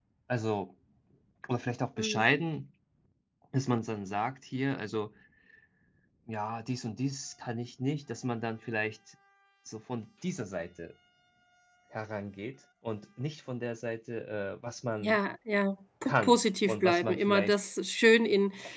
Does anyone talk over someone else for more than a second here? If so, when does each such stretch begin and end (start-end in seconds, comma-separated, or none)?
16.1-17.6